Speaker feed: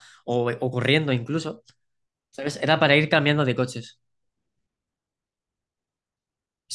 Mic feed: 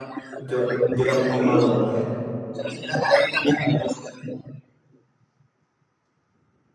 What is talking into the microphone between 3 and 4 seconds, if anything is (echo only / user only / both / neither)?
echo only